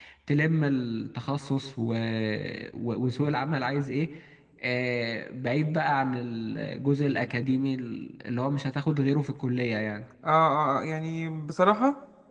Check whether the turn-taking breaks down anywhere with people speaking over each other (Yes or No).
No